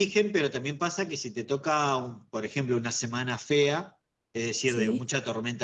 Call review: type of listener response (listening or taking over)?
listening